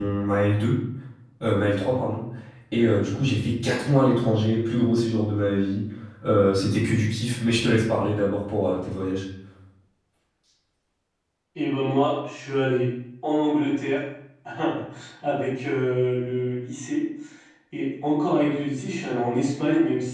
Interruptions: none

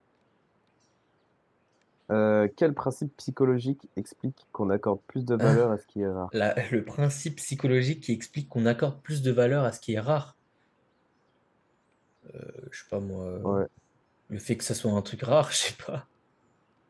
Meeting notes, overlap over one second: none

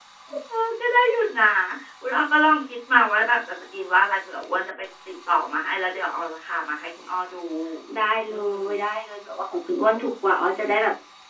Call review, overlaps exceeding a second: none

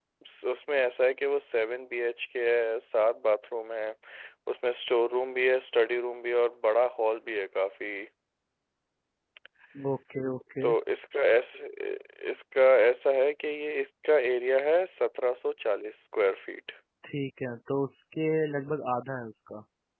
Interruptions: none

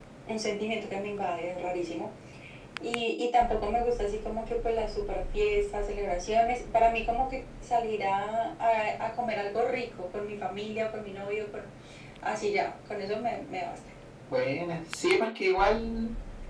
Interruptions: none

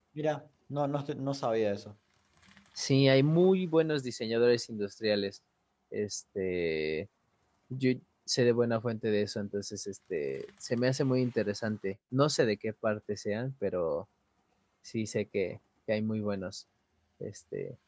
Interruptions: none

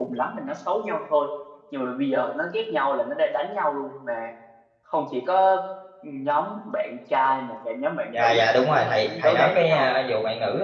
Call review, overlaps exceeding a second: present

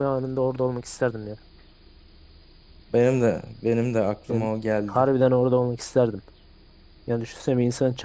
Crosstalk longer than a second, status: none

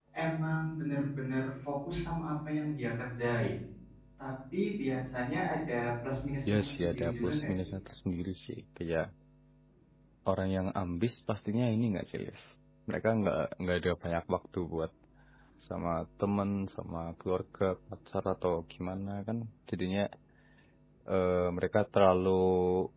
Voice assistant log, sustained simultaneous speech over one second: present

